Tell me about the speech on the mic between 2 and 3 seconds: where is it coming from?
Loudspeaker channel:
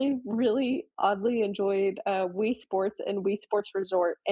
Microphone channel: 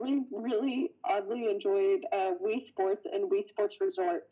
echo only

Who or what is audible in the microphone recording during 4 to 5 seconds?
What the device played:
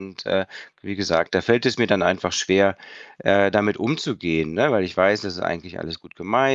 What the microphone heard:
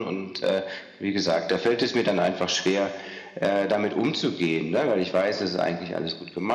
echo only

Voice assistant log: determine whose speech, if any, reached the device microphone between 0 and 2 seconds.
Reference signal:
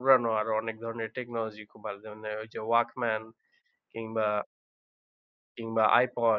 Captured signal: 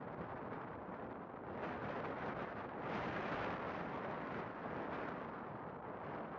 neither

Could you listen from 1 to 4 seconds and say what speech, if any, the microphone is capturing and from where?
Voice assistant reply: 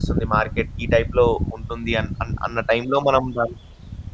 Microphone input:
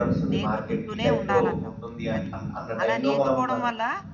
both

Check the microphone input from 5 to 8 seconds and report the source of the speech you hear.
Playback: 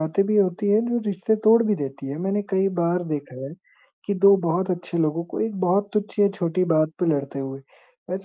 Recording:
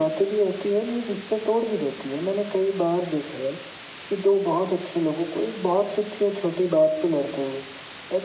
echo only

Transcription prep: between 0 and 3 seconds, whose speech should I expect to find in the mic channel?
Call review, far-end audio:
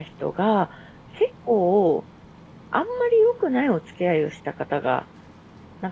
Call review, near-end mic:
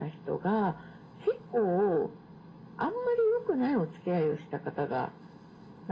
echo only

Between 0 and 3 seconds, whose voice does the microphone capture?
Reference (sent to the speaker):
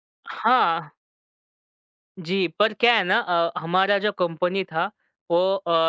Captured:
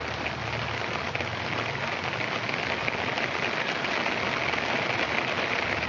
neither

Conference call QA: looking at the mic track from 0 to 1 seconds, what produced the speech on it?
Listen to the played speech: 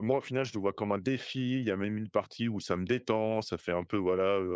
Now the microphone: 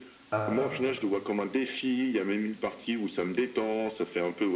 both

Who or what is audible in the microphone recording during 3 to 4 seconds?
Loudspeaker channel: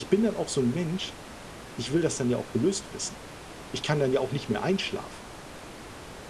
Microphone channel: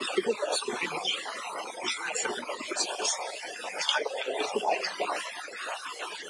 echo only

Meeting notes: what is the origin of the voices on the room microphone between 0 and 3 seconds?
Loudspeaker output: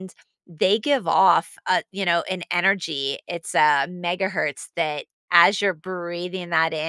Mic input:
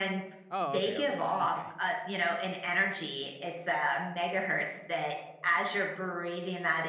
both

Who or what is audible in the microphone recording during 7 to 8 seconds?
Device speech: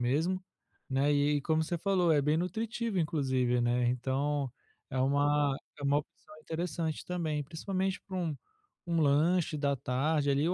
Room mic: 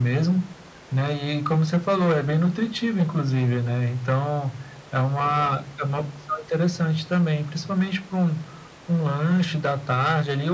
echo only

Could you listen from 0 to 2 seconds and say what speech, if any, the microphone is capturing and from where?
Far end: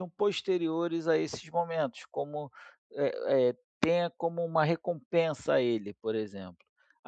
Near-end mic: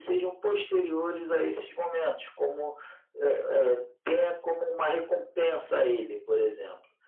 echo only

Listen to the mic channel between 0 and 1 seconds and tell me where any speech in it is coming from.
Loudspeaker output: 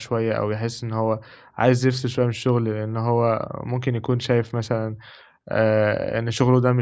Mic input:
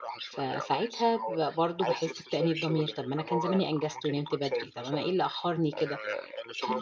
both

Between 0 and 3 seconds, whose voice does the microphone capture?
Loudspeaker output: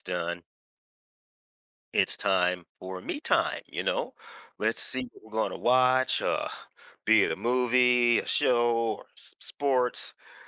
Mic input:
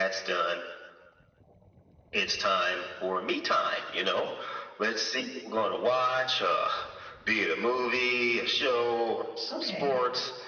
echo only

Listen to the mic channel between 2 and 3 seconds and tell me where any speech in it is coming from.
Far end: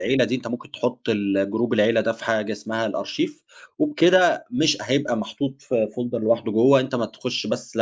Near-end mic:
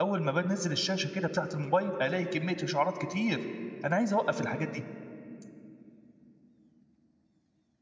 user only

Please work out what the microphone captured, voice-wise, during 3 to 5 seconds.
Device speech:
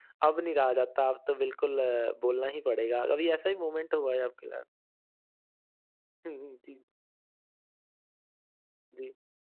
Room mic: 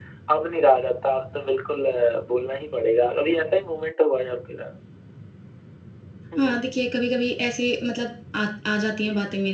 echo only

